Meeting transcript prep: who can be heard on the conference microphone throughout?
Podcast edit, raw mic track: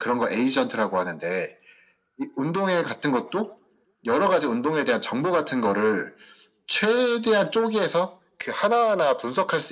echo only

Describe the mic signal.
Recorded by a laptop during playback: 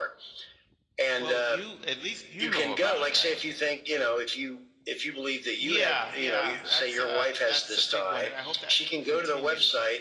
both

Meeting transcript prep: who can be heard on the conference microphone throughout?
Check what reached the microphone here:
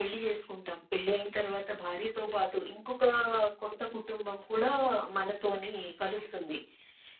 echo only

